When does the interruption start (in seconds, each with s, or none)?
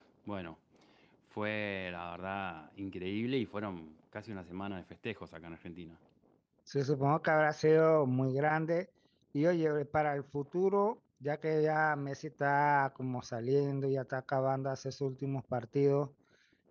none